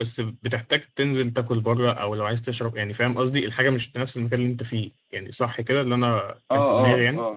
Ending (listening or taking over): taking over